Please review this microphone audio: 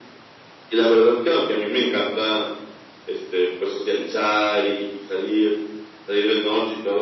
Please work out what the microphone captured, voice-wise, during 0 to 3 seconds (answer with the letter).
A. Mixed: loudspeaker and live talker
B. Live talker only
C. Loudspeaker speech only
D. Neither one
C